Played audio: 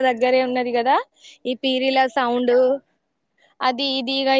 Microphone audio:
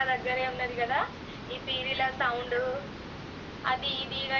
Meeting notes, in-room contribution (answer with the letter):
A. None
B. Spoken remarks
A